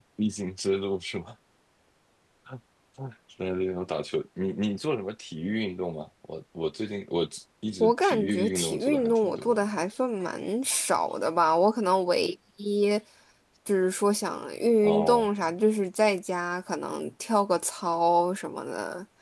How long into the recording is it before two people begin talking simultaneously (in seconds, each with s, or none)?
7.8 s